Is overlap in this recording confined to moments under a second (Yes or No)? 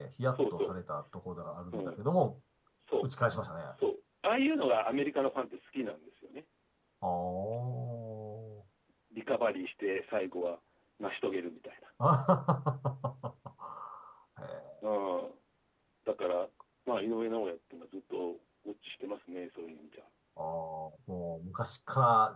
Yes